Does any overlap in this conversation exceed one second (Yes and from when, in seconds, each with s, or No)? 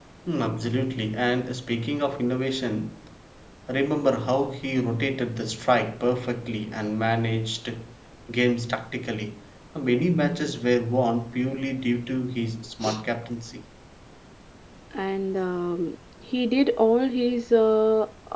No